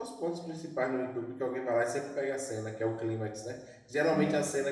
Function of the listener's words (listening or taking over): listening